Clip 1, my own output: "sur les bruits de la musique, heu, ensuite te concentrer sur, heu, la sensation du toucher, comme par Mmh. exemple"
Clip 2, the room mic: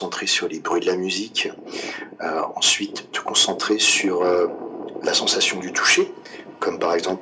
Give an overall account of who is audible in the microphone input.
echo only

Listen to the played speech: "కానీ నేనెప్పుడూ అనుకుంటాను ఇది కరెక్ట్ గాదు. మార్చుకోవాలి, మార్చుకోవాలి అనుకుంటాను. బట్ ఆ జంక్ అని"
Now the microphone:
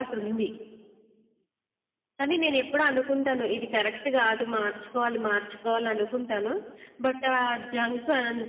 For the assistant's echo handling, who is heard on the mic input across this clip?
echo only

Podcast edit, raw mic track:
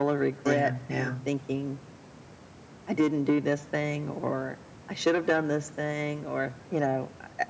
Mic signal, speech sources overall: both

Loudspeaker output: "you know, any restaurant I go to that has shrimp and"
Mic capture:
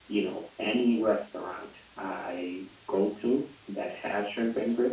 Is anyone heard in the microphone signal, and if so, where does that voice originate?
echo only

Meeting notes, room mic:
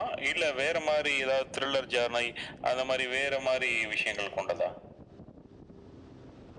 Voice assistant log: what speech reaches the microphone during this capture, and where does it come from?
echo only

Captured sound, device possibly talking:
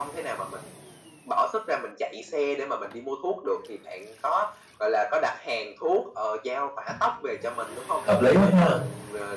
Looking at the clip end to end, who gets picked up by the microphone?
both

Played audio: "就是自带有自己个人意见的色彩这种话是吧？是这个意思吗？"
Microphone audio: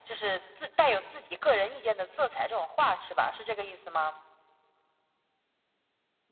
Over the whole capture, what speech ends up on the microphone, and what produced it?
echo only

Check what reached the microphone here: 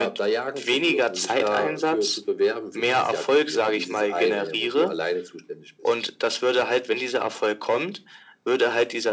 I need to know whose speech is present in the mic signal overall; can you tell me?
echo only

